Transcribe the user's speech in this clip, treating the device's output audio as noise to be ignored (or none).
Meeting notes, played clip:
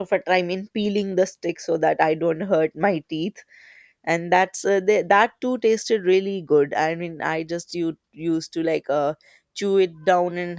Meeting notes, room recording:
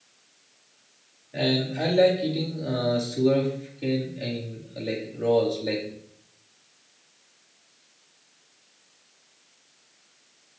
And I like eating uh, sugarcane in uh, like raws, like